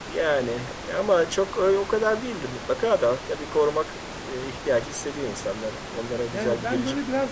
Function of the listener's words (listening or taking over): taking over